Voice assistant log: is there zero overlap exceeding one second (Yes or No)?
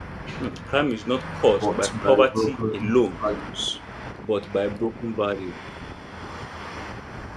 No